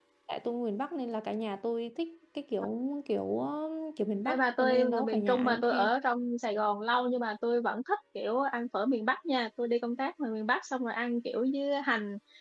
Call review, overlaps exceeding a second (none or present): present